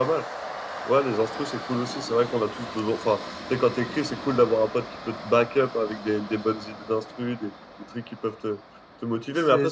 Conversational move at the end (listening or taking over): listening